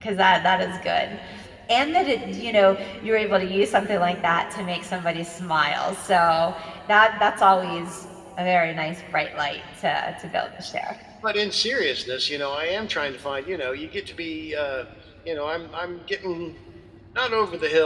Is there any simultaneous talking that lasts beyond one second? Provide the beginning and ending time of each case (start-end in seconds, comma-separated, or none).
none